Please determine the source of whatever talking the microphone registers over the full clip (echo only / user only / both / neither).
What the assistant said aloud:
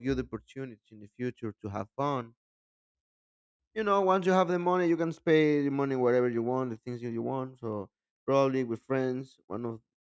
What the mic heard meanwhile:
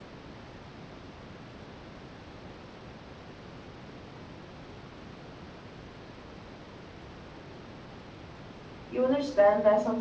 user only